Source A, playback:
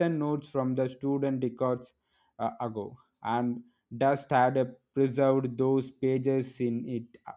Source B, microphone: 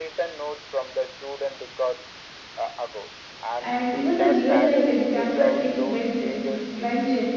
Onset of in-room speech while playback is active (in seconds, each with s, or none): 3.6 s